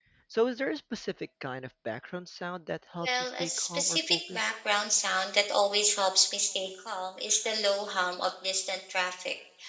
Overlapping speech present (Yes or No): Yes